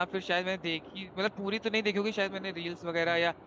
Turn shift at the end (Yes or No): No